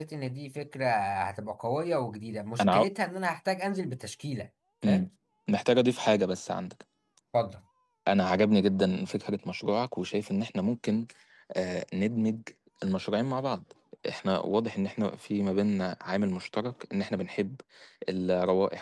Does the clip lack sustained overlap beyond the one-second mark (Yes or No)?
Yes